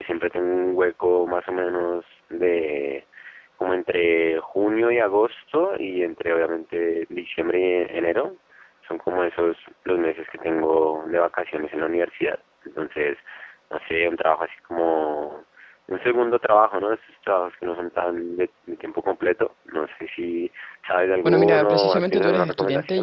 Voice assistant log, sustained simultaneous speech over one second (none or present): present